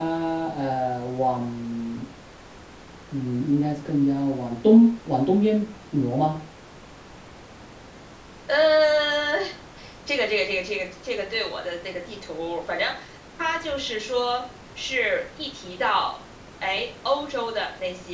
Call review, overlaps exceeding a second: none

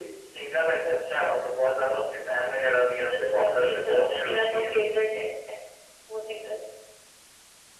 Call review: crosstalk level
present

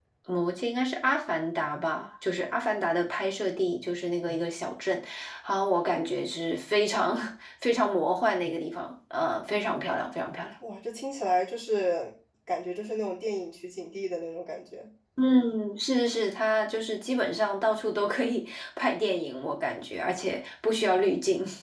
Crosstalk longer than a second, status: none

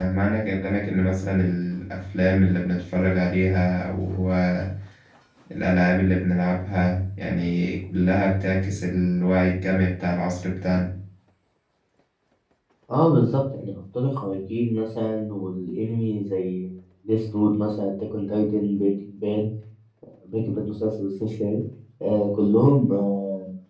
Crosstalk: none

